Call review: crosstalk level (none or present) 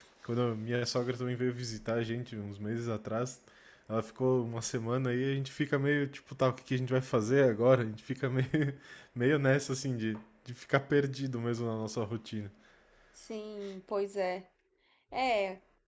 none